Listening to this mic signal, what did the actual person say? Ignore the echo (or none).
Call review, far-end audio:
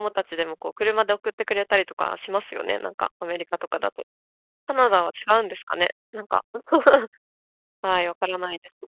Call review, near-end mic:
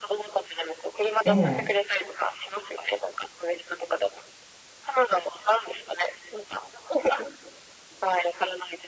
ええ。